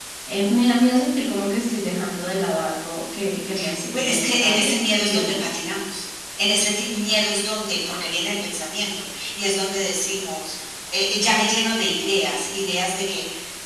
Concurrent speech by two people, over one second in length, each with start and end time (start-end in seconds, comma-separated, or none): 3.9-5.5